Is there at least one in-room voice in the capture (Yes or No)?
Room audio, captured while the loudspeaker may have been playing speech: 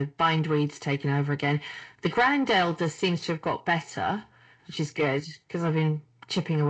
No